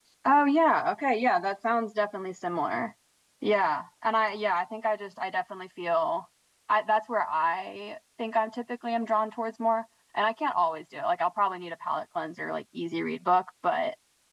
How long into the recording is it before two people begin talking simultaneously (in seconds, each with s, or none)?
none